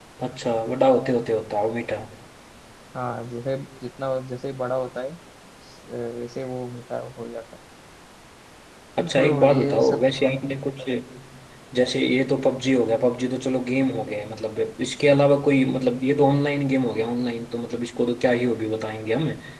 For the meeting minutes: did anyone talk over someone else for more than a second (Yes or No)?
Yes